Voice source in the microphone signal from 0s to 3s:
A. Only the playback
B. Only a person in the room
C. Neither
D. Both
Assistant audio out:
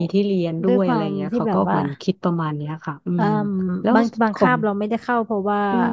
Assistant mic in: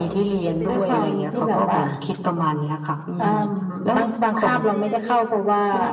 D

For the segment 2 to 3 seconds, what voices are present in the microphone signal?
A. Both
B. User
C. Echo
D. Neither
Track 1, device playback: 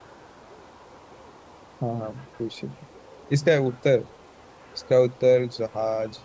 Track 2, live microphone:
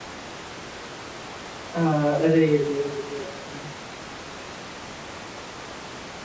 B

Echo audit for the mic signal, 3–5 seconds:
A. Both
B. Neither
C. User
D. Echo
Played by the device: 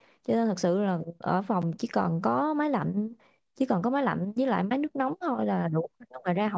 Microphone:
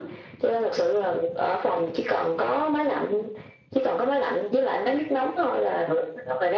D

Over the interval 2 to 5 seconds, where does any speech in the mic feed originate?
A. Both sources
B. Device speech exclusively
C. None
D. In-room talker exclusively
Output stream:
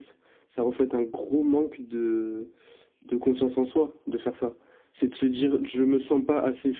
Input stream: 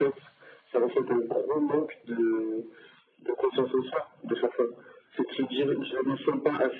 B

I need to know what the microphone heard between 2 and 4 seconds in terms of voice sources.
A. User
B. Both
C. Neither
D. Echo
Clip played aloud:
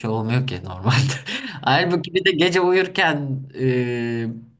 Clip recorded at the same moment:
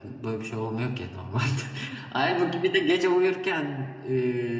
D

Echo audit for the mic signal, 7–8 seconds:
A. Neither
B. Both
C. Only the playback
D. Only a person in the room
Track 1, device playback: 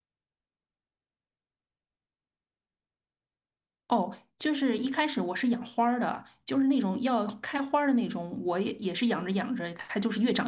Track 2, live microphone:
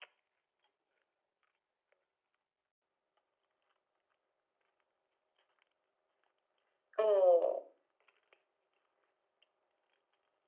D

